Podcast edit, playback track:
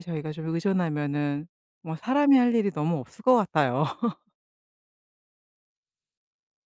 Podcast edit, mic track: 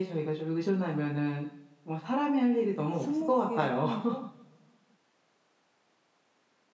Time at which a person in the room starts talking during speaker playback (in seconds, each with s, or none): 2.9 s